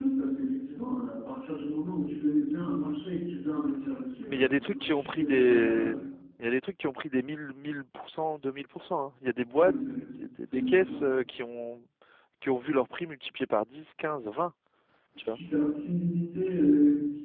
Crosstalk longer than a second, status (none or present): present